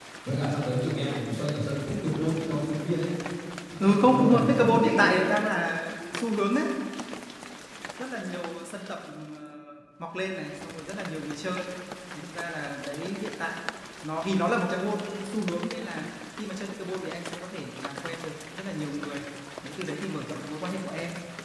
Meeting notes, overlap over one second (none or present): present